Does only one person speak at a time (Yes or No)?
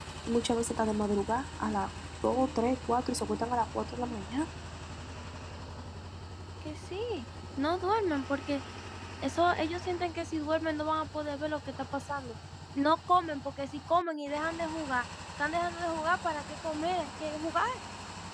Yes